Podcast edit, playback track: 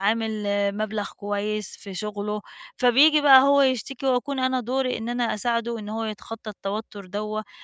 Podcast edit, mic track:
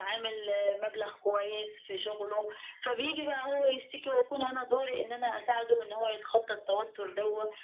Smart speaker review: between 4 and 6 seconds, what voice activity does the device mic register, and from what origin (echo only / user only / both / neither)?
echo only